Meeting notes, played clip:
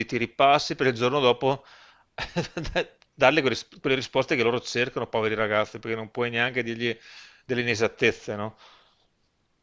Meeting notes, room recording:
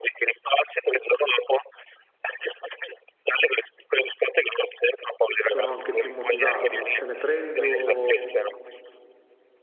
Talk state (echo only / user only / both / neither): both